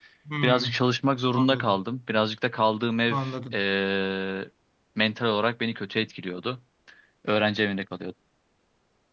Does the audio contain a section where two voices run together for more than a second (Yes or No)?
No